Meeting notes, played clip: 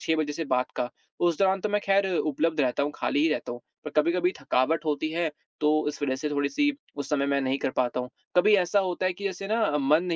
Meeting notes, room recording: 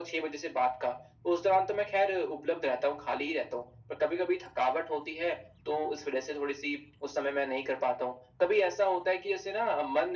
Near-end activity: none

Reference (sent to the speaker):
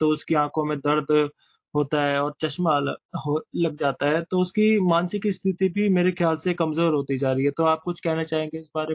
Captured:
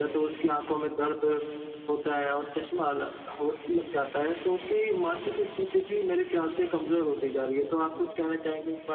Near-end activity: none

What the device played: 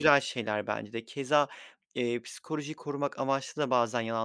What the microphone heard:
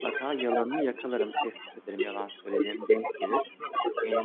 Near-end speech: present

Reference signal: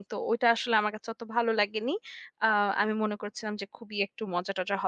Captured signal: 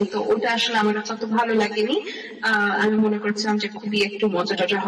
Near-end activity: none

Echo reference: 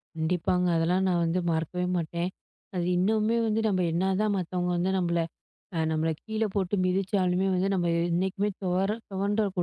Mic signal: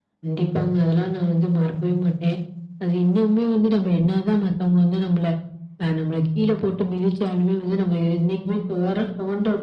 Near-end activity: none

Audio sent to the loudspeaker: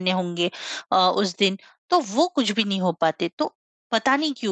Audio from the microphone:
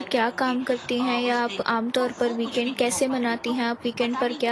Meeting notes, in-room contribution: present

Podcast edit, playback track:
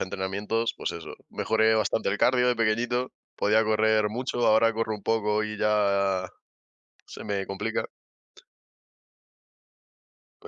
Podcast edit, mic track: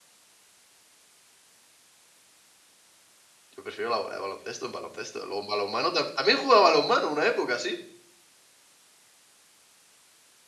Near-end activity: present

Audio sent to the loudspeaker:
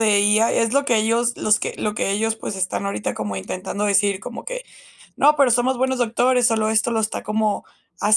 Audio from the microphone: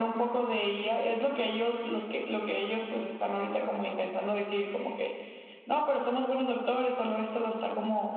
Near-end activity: none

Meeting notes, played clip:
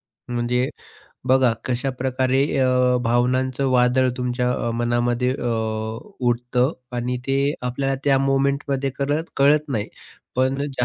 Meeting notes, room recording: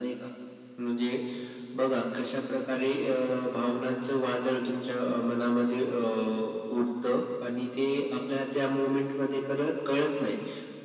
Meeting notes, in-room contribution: none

